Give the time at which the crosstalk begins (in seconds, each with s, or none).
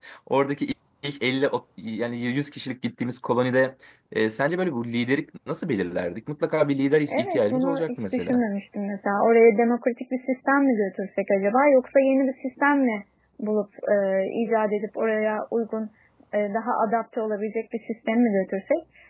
7.1 s